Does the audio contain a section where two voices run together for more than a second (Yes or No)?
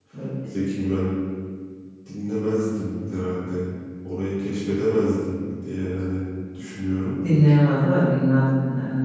No